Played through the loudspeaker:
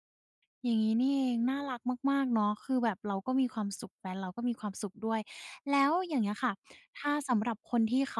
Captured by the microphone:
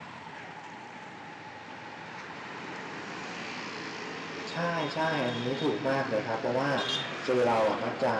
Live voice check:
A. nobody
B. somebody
B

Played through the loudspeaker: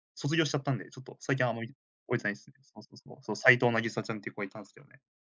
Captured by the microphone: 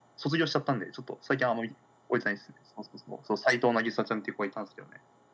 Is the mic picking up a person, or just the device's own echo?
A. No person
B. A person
A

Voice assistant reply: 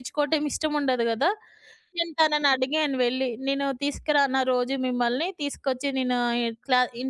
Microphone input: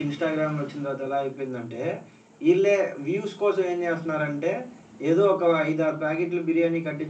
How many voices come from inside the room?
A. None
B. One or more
B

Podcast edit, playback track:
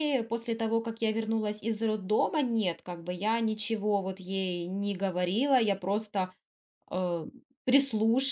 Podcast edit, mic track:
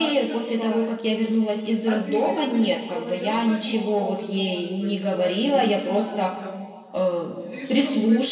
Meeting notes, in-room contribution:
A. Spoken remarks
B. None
A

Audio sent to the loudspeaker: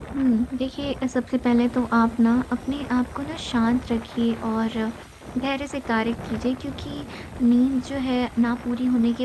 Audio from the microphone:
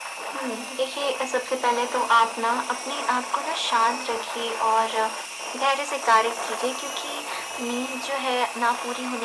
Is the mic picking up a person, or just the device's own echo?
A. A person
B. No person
B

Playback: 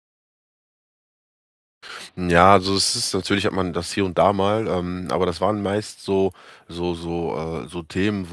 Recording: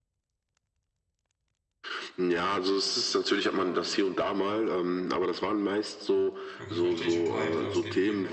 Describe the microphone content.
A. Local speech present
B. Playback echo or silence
A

